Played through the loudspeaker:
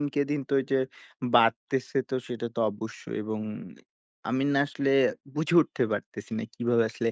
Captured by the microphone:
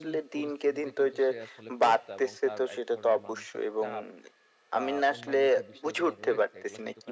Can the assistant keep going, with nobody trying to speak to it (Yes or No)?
No